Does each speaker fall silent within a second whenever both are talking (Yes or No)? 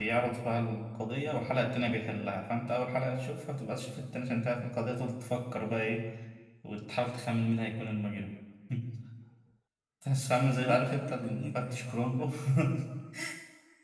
No